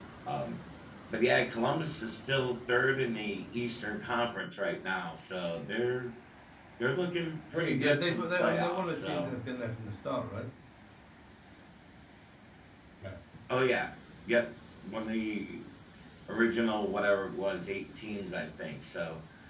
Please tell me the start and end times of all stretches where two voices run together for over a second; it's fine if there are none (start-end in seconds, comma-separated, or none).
7.5-9.3